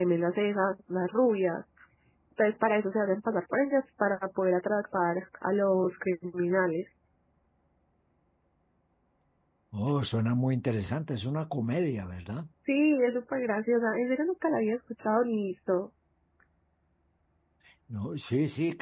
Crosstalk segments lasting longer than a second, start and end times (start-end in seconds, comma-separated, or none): none